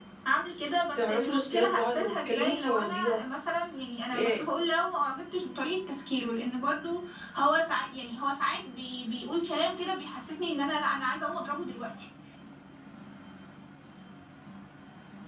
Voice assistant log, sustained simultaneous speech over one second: present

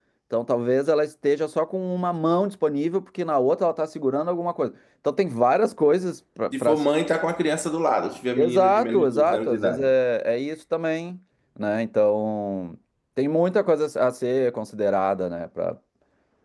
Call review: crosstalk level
present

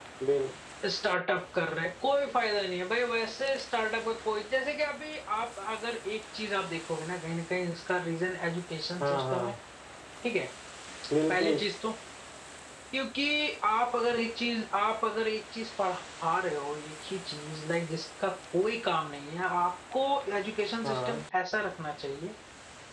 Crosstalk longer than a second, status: none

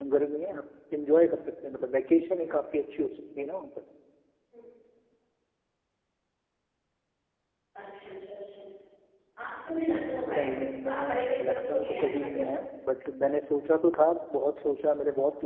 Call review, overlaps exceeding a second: present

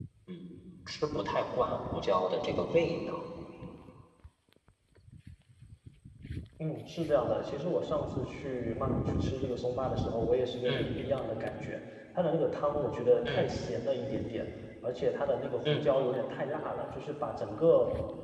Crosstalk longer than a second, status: none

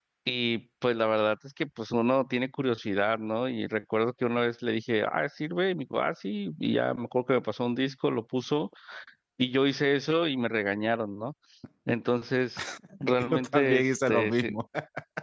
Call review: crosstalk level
present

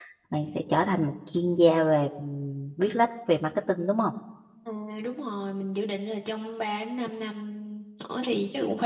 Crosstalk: none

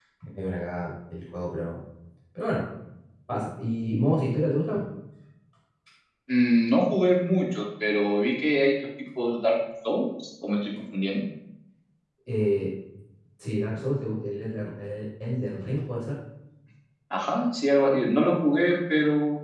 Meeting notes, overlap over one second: none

